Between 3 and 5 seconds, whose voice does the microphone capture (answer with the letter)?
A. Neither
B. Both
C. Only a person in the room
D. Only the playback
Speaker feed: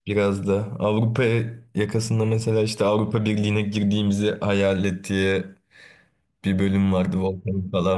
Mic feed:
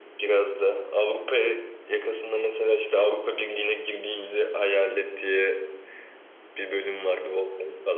D